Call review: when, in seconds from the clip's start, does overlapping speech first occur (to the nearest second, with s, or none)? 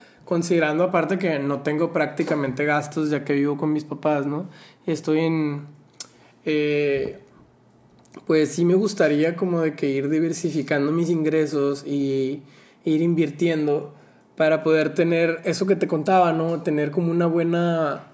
none